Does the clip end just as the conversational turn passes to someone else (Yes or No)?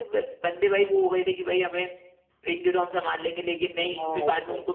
No